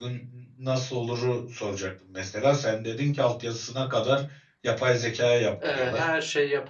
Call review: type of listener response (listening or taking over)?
taking over